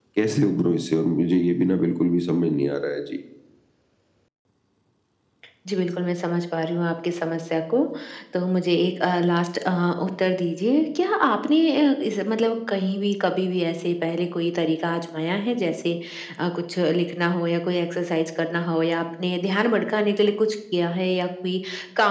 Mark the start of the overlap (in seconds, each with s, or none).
none